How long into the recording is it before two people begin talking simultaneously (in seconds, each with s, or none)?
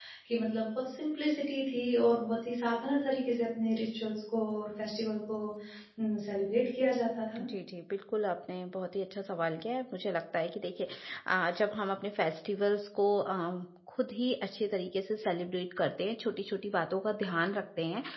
none